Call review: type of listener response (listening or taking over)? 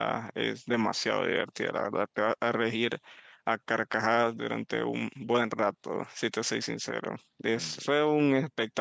listening